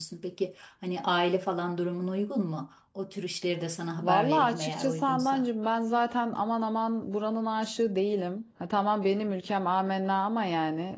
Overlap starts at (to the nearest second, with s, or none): 4 s